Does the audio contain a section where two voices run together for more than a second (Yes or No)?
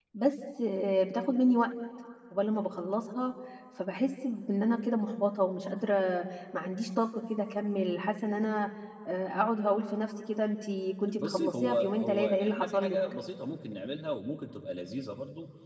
Yes